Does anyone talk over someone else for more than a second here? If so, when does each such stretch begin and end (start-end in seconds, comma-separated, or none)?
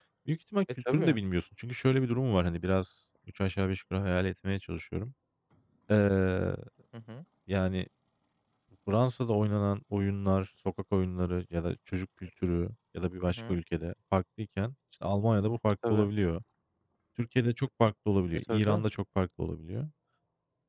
none